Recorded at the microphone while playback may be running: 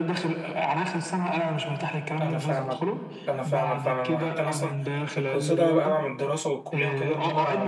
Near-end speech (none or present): present